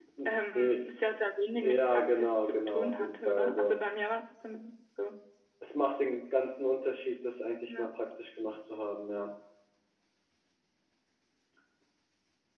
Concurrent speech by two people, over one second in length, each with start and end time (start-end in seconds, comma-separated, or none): 1.6-3.8